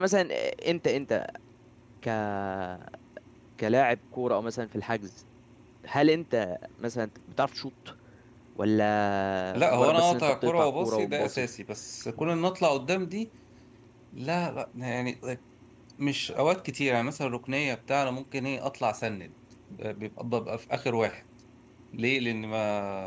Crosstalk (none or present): present